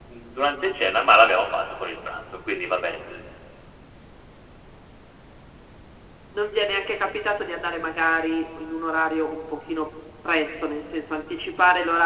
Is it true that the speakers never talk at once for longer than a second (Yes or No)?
Yes